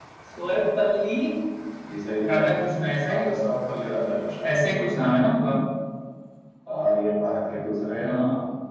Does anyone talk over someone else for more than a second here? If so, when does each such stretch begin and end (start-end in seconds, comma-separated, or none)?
none